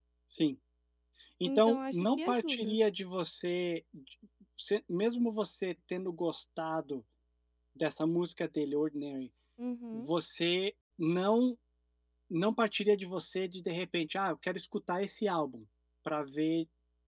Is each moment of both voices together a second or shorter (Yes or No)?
No